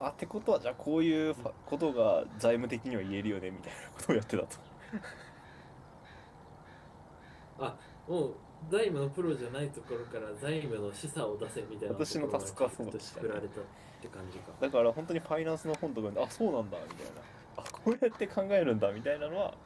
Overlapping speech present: Yes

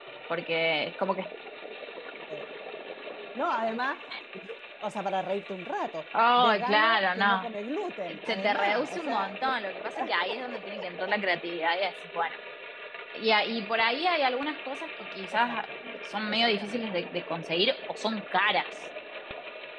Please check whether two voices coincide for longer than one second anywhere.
Yes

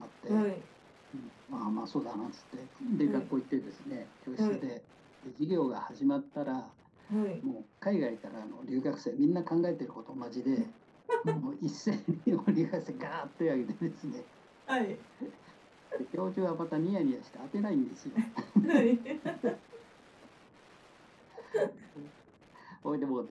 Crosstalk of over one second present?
No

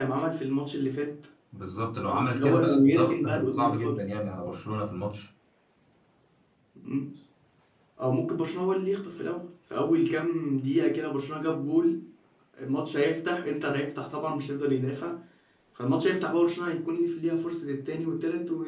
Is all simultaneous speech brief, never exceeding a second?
No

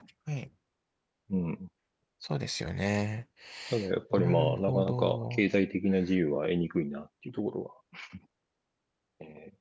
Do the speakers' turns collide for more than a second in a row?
Yes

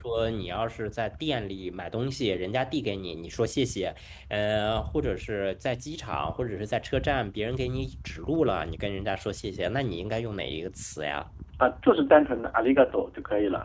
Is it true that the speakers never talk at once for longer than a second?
Yes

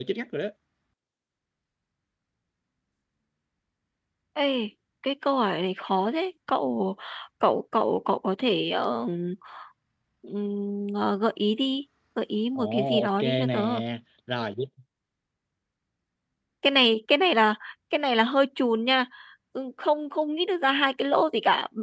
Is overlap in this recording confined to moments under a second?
No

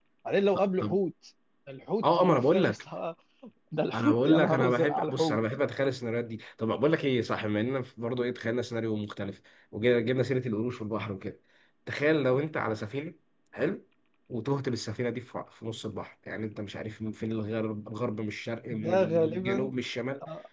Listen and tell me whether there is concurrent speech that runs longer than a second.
Yes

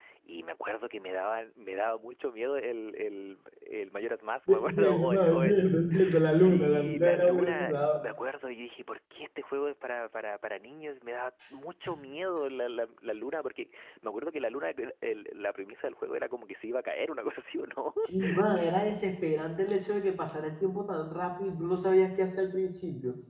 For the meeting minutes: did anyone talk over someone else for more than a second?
Yes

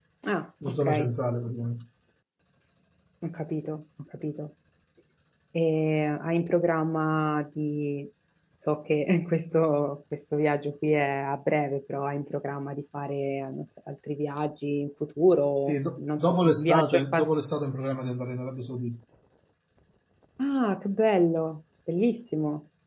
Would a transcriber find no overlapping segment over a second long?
No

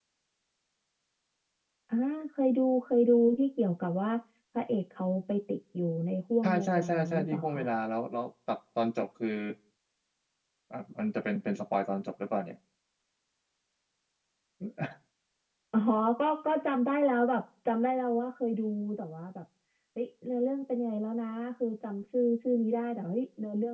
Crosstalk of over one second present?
Yes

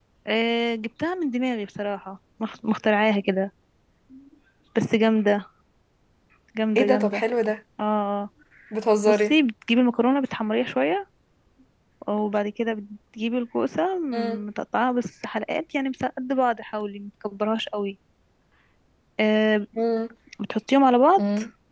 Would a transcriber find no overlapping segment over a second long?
Yes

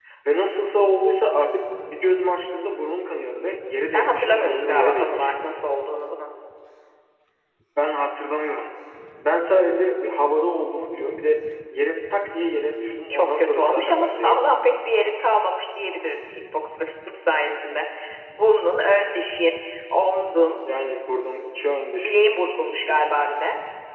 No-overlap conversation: No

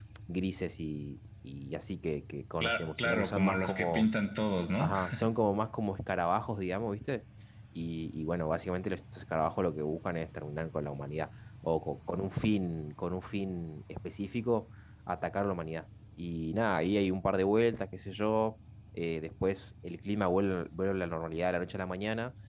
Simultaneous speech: Yes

